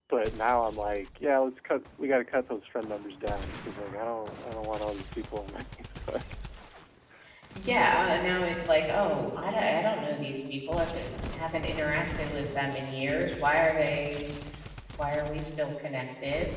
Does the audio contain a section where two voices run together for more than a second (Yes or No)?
No